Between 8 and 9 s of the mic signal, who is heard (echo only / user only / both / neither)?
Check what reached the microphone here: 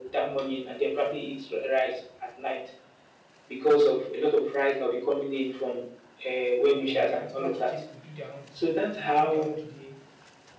both